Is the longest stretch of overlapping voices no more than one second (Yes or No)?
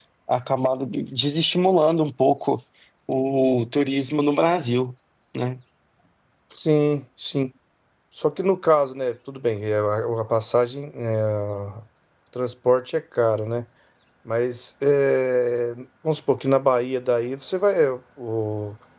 Yes